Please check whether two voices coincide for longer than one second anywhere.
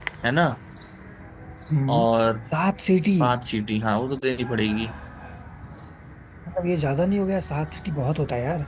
No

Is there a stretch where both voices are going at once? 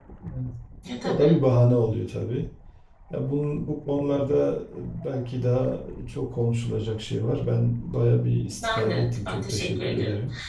Yes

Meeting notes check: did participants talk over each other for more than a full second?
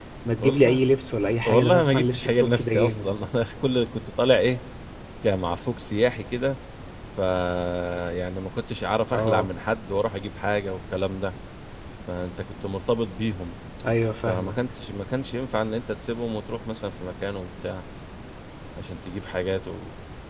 Yes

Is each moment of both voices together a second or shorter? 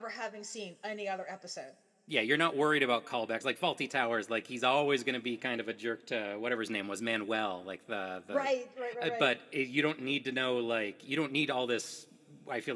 Yes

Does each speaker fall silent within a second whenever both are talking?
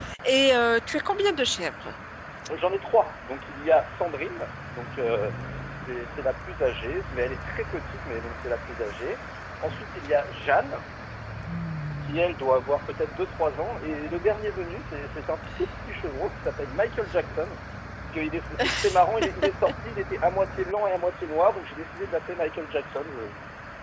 Yes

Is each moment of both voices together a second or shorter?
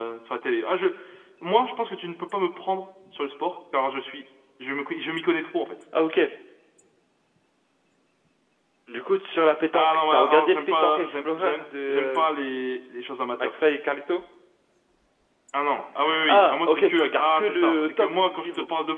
No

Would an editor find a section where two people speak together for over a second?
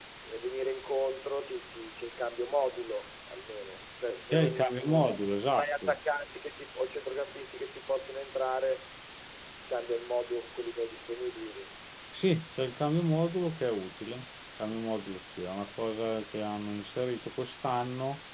Yes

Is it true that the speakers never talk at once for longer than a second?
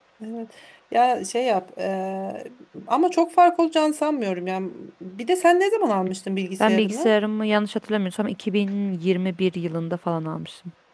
Yes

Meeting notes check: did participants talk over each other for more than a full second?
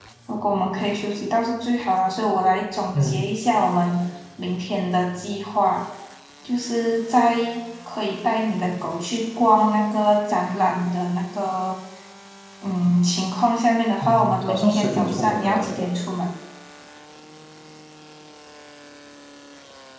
Yes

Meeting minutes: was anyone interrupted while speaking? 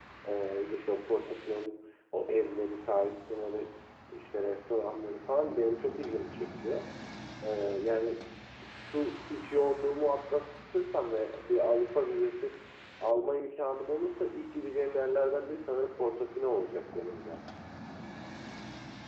No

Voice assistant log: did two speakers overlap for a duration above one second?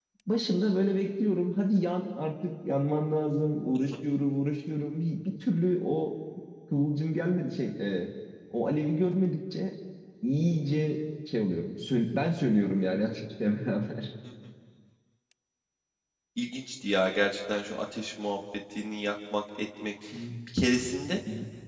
No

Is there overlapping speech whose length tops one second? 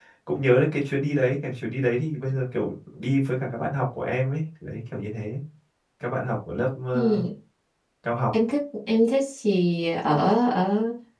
No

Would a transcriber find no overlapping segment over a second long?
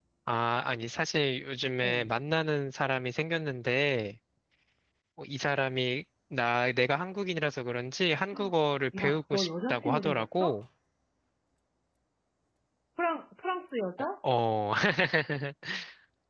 No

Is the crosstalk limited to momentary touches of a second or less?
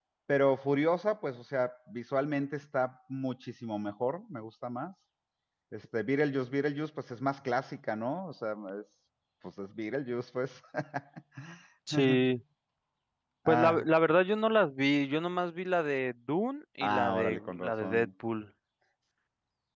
No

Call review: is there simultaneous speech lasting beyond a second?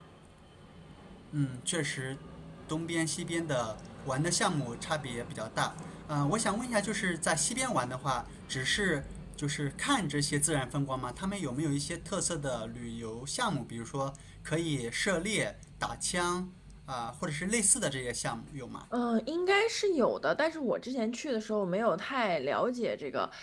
No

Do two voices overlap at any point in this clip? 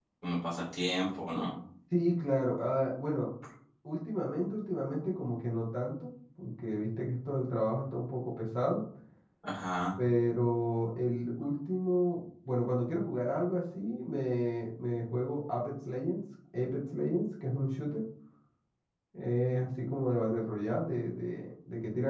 No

